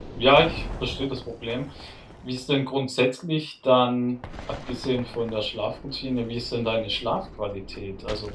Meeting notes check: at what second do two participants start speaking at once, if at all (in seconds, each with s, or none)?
none